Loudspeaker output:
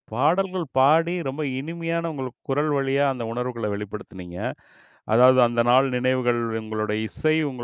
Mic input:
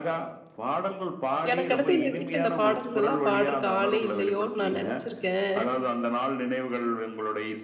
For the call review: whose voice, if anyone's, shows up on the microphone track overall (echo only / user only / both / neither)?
both